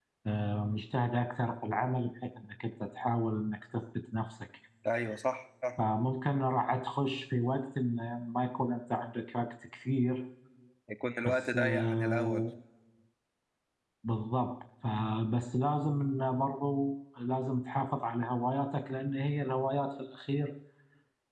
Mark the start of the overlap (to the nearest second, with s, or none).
11 s